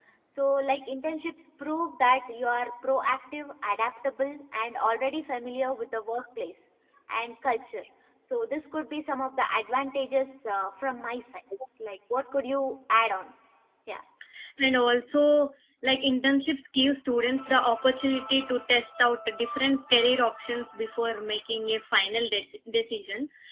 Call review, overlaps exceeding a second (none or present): none